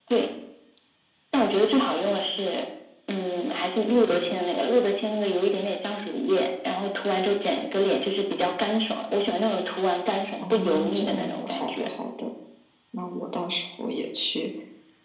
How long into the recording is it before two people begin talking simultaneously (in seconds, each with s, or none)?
10.4 s